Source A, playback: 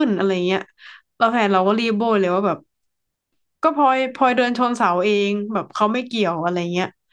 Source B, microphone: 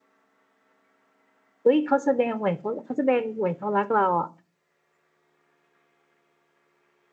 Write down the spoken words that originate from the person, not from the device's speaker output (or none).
เอ้ยเขาแสดงเหมือนเขาเขาแสดงเหมือนเขารักเราอ่ะ